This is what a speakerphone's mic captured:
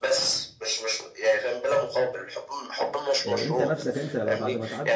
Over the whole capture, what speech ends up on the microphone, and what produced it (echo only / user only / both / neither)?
both